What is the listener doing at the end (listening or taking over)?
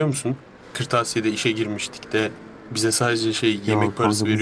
taking over